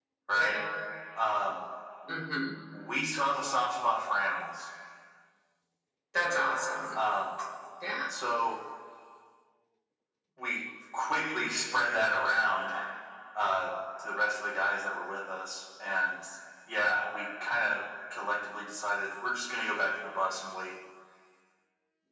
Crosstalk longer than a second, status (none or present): none